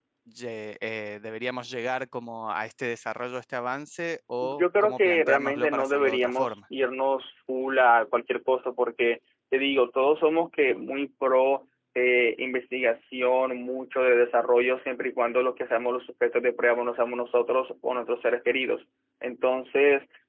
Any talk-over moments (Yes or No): Yes